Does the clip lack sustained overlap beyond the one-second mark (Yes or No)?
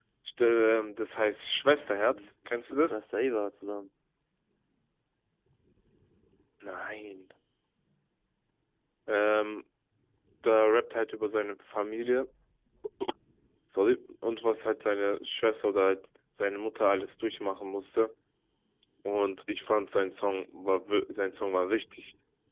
No